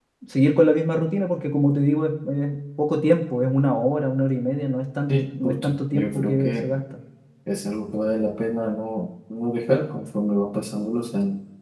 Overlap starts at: 5.1 s

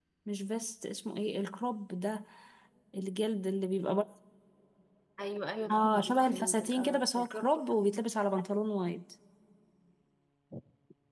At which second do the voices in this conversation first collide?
5.7 s

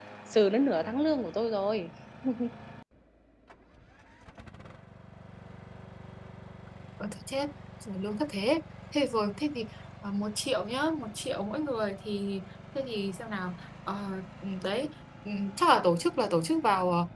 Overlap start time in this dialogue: none

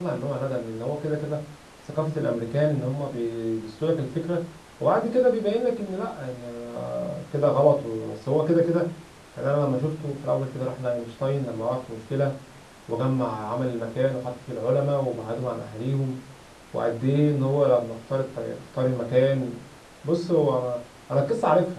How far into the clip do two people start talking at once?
none

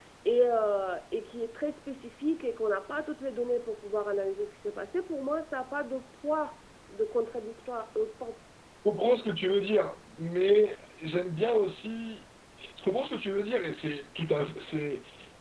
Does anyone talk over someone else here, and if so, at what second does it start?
none

